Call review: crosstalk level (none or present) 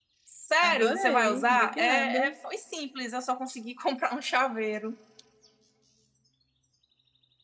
present